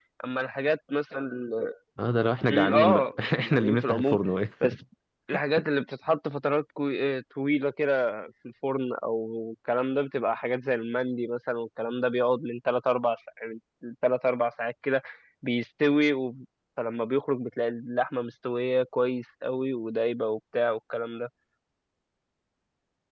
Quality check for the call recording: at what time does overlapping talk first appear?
2.4 s

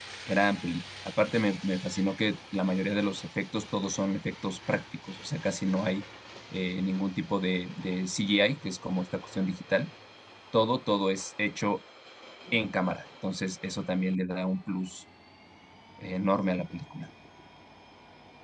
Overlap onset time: none

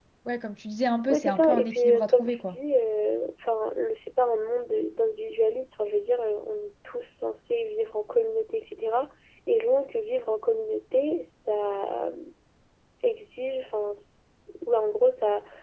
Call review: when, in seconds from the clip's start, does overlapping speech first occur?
1.1 s

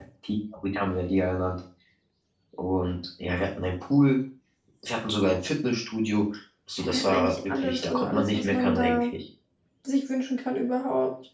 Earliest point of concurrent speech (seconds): 6.9 s

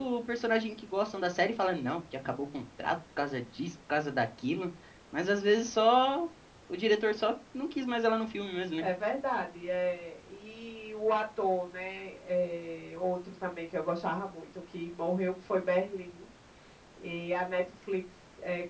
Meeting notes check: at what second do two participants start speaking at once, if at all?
none

